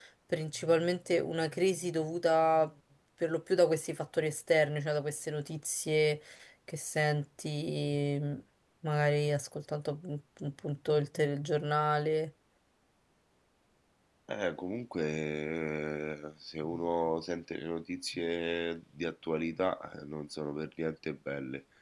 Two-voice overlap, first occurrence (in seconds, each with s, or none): none